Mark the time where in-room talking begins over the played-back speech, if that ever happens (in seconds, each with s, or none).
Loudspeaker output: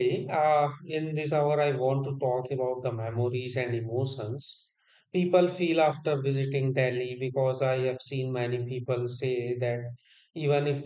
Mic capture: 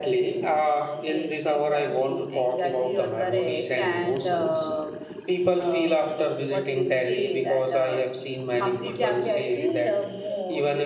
1.0 s